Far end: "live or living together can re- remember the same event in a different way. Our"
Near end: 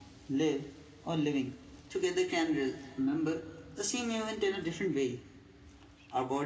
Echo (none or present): present